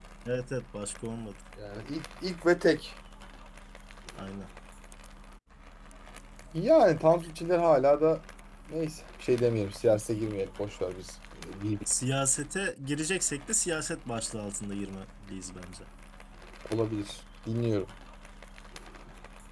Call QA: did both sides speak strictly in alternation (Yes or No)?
Yes